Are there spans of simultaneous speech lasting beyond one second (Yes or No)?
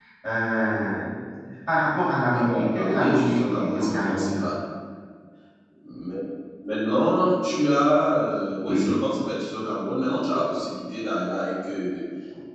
Yes